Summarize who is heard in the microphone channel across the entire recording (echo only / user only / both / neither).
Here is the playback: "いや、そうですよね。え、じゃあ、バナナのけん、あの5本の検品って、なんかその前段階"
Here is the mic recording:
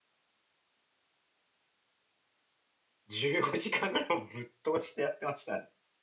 user only